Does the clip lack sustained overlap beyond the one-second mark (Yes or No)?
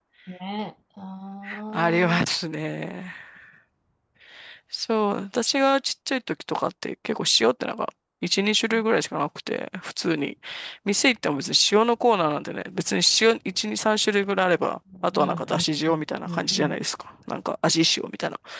No